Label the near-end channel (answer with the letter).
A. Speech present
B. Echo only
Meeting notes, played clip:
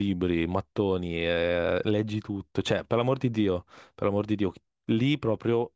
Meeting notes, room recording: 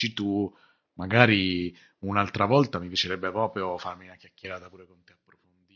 A